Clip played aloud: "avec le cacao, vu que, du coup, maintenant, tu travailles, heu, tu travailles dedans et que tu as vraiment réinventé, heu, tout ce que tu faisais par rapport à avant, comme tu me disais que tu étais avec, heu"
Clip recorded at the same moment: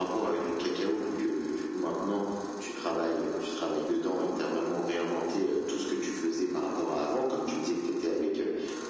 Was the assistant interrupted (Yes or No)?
No